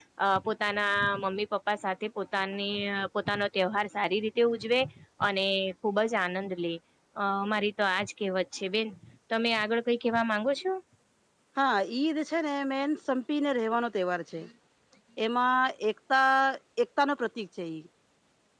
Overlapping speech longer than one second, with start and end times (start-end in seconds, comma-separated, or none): none